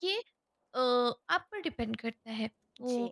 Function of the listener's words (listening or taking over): listening